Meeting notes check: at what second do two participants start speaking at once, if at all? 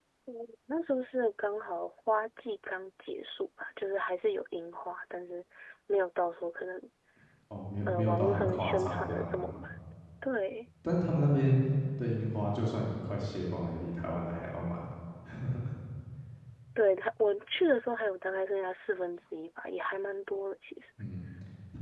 7.9 s

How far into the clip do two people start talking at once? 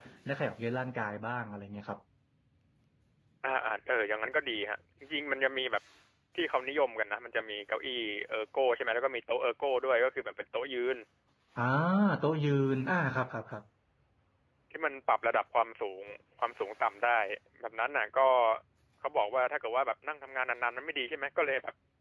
none

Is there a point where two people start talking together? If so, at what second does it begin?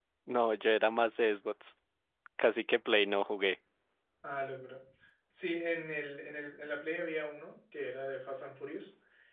none

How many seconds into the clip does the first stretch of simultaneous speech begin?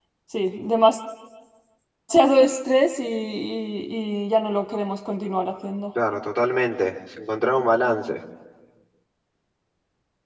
none

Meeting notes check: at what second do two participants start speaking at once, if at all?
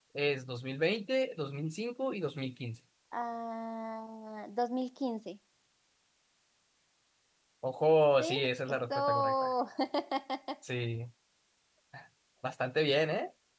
8.2 s

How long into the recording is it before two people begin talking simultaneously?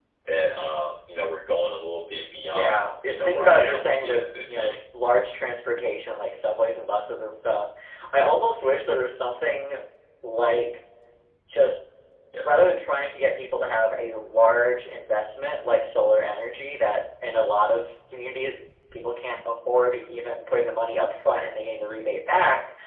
2.5 s

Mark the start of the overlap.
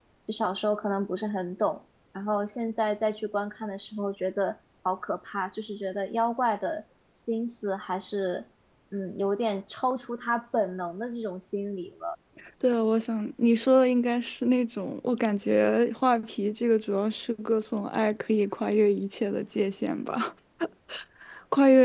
none

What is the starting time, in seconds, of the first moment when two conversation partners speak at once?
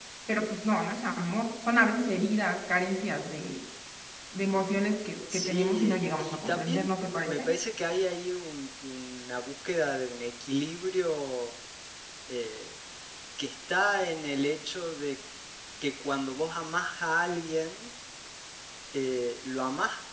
5.3 s

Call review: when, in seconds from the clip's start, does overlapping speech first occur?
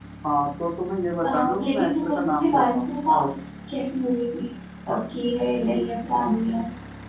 1.2 s

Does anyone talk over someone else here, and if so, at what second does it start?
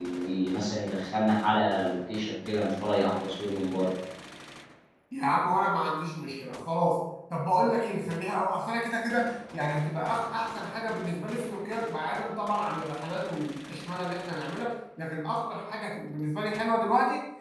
none

